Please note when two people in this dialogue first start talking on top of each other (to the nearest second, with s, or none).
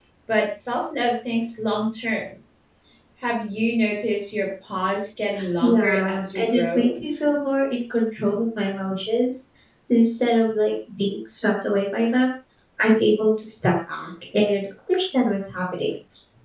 6 s